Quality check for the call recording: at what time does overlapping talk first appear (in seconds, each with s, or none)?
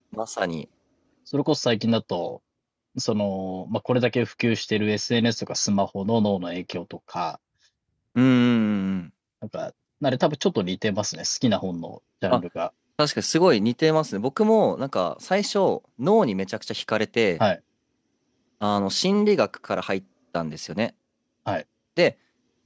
none